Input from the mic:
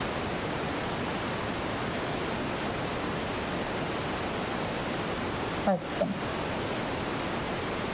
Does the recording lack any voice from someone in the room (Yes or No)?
No